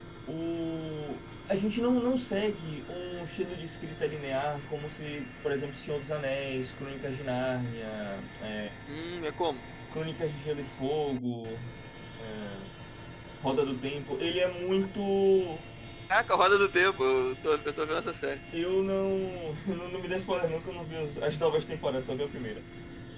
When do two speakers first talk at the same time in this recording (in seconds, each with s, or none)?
none